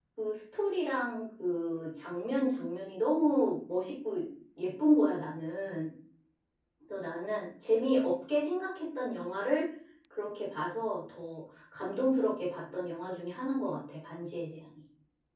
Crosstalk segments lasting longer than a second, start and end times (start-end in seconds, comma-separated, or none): none